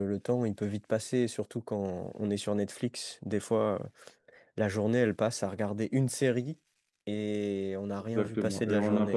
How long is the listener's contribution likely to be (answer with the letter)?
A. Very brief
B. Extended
B